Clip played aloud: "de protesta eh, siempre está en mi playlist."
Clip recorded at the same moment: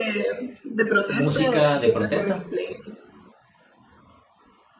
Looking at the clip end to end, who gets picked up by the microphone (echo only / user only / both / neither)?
both